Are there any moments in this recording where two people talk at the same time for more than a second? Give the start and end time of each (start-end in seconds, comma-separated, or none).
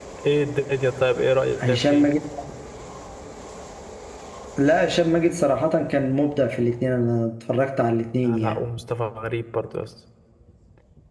none